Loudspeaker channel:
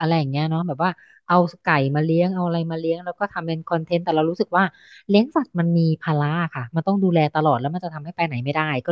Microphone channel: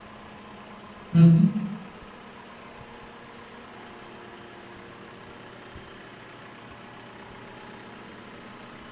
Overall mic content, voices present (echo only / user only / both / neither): user only